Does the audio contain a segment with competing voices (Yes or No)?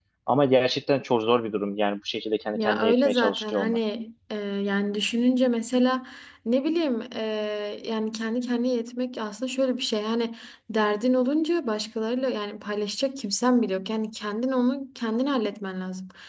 Yes